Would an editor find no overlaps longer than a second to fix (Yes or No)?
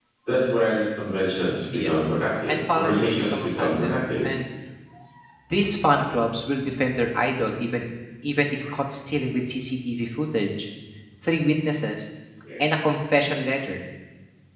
No